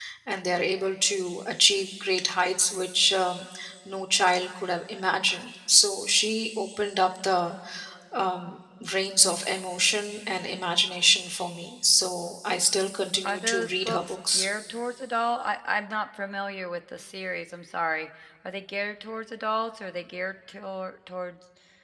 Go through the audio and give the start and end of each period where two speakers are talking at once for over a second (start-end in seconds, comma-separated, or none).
13.2-14.5